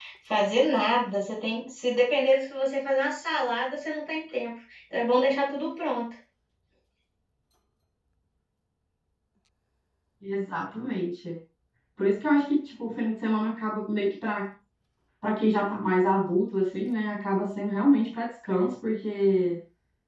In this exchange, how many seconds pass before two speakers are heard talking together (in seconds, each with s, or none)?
none